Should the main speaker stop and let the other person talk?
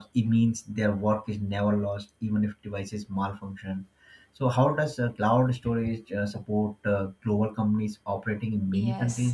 Yes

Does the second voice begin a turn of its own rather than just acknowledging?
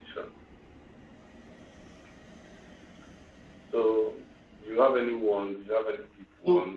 Yes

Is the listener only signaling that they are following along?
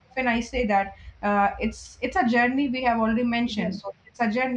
Yes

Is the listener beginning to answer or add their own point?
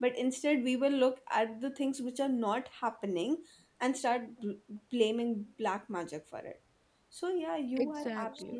No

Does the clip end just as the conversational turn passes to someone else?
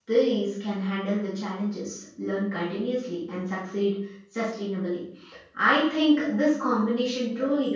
No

